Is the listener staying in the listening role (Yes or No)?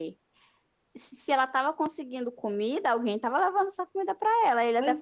Yes